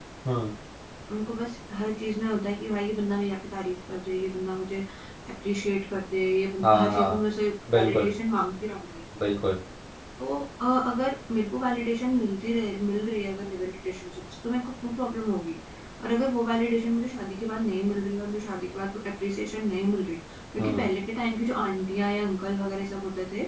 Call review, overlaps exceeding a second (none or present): none